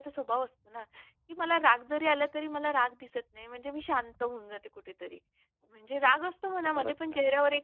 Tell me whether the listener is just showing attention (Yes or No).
Yes